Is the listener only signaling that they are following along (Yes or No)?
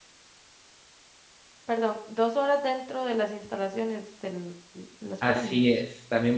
No